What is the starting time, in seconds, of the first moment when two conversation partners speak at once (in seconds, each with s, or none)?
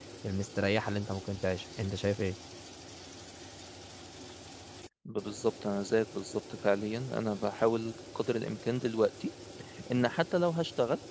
none